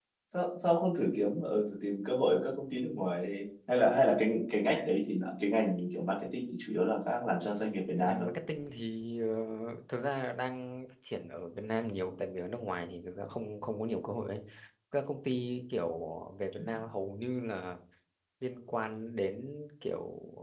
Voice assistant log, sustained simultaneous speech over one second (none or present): none